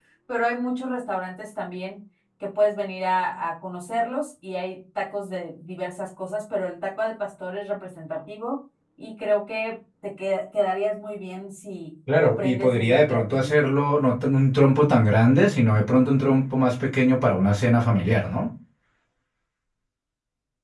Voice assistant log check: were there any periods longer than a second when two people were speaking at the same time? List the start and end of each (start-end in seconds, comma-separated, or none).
12.2-13.5